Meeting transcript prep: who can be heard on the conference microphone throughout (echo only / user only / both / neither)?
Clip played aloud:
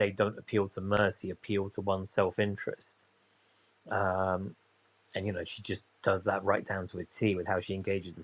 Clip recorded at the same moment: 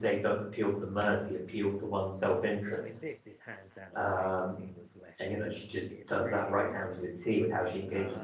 both